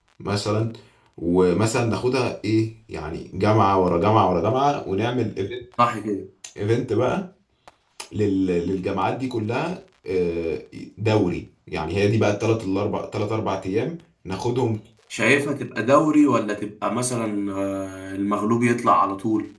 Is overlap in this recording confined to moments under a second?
Yes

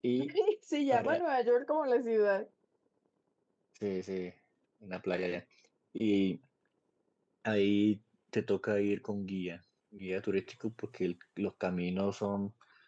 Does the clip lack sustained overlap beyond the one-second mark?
Yes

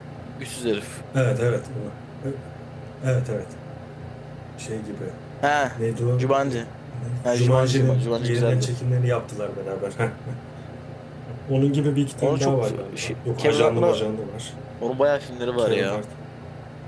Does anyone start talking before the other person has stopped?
Yes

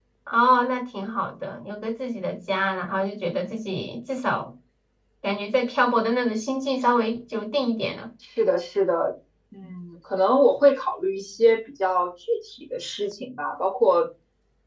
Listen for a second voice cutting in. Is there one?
No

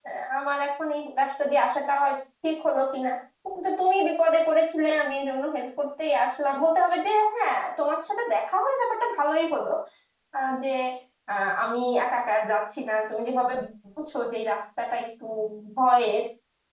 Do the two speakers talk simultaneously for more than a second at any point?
No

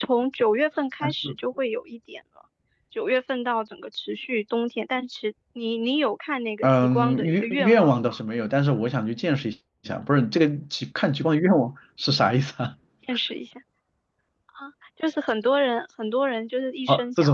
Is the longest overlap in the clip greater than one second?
Yes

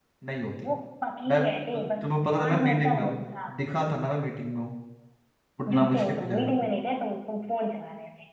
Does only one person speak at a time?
No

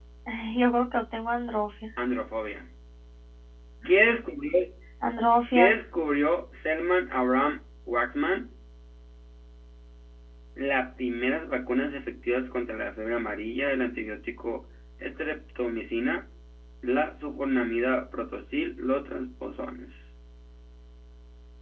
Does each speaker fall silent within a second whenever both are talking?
Yes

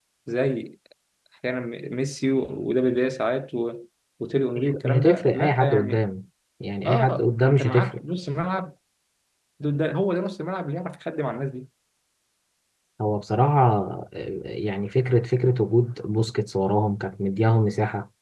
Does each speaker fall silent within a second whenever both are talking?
No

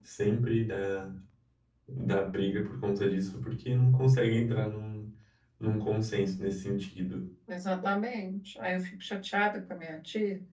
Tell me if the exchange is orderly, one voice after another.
Yes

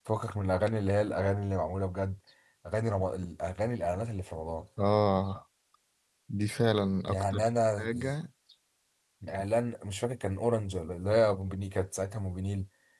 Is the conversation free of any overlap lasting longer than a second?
Yes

